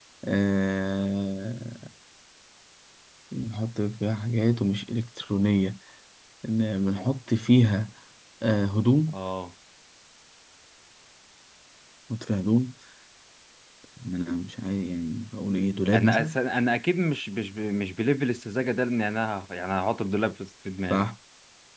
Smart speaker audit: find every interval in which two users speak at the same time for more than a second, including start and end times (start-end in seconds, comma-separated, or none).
none